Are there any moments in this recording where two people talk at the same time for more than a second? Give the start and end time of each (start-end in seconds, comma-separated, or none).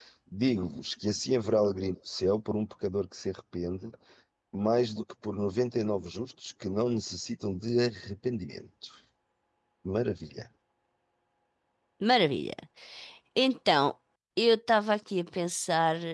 none